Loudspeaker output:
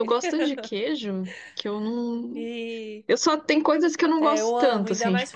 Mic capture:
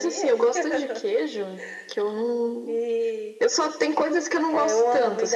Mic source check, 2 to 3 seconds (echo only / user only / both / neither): echo only